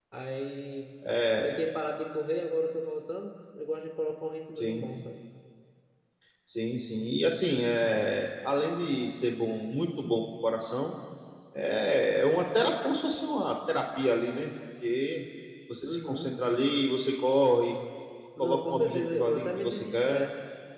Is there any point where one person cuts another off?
Yes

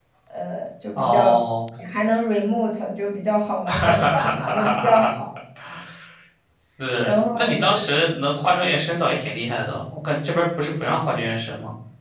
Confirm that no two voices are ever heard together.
No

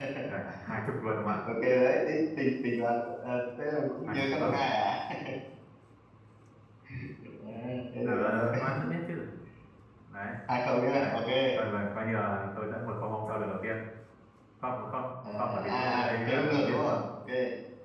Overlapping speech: Yes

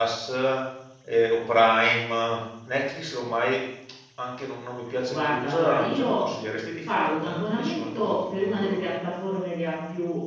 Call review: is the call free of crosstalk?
No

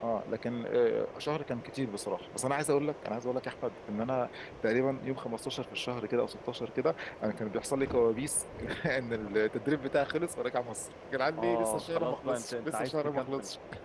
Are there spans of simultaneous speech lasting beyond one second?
Yes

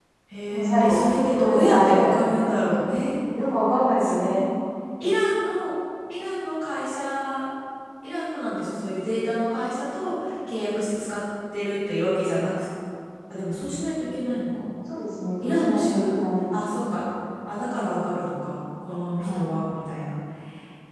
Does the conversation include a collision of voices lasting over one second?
Yes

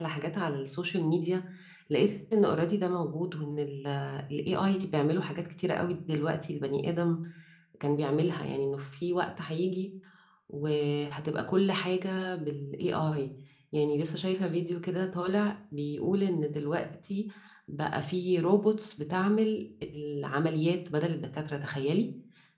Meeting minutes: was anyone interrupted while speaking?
No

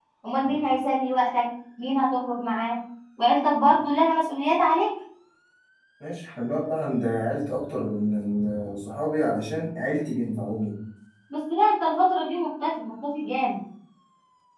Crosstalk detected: No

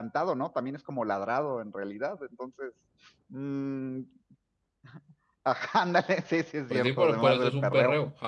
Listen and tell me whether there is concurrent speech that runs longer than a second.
Yes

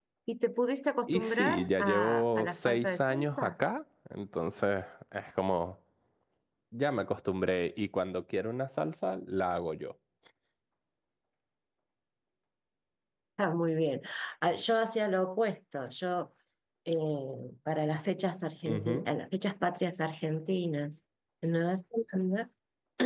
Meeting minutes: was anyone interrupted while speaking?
Yes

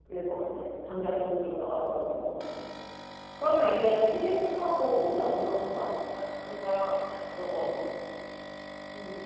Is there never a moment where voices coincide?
Yes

